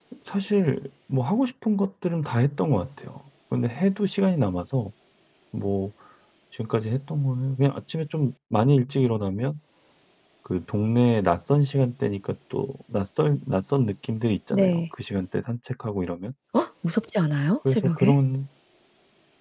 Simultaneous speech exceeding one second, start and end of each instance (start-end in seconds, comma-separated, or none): none